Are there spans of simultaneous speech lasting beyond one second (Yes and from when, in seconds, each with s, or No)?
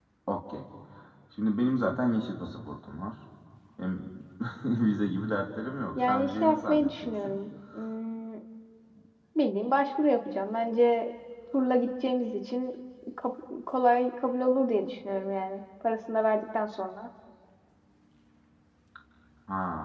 Yes, from 6.0 s